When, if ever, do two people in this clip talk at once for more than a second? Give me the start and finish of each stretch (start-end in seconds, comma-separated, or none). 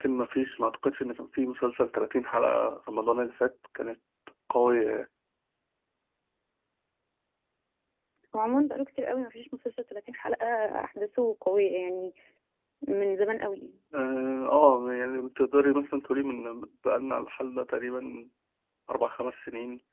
none